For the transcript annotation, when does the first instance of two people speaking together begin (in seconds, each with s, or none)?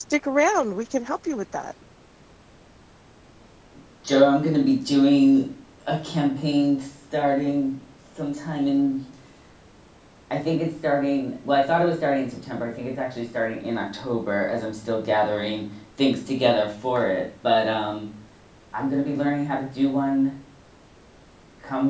none